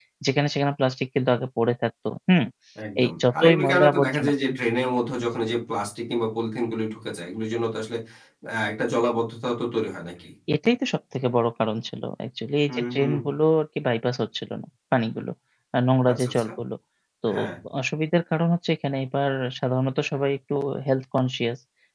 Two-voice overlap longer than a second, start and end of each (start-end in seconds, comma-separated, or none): 3.0-4.3